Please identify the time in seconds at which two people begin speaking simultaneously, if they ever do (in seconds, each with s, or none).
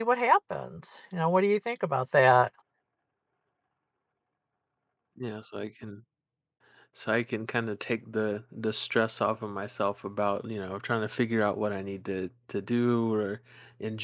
none